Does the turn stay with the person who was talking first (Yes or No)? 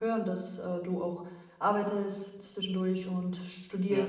Yes